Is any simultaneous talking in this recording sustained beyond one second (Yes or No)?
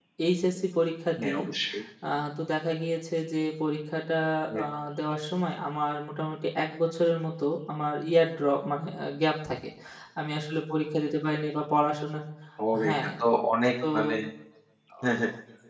No